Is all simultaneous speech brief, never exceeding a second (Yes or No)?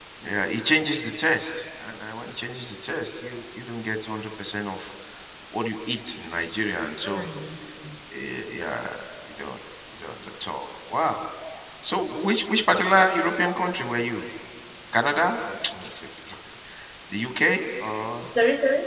Yes